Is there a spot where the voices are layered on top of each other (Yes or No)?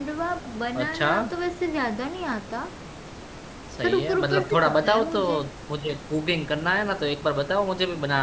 Yes